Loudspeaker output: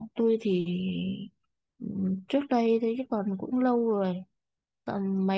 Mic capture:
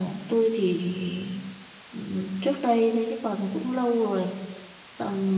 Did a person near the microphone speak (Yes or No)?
No